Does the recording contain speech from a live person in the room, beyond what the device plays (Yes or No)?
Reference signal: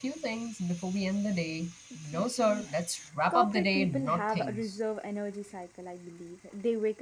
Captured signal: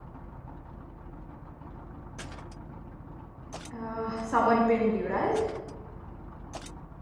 Yes